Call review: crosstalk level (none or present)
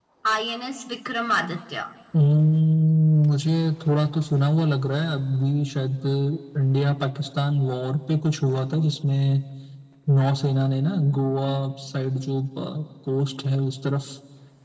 none